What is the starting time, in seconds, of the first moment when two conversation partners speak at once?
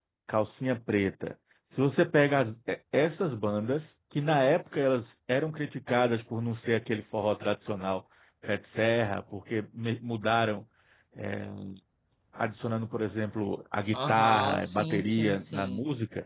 14 s

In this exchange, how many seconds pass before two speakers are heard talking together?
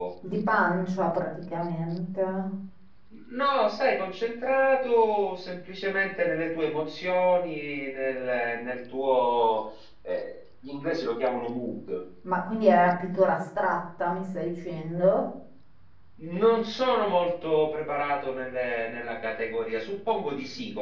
none

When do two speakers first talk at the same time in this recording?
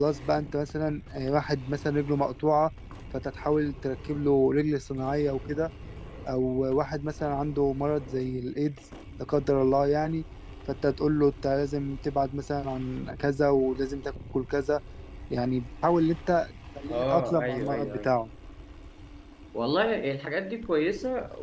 17 s

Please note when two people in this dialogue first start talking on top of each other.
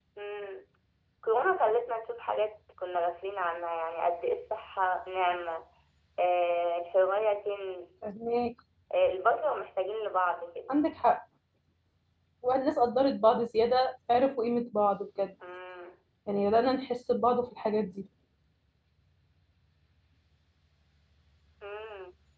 none

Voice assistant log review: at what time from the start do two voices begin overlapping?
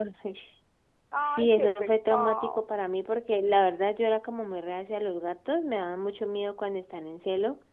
1 s

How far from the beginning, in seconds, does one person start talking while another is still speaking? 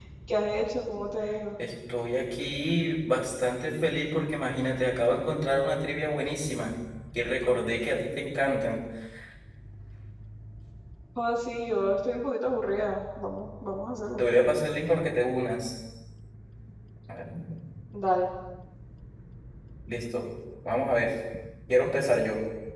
none

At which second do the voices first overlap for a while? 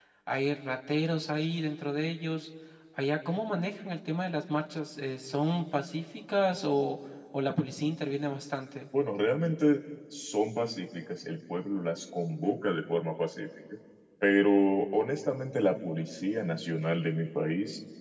none

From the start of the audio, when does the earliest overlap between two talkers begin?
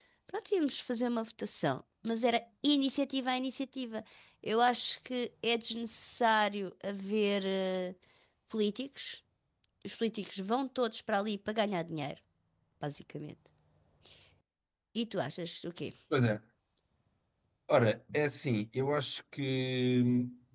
none

